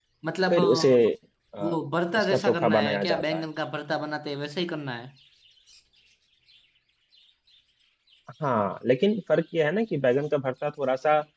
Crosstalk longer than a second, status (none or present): present